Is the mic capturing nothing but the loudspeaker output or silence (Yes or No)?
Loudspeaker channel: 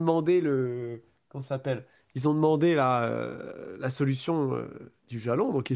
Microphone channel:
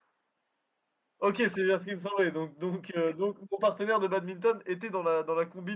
No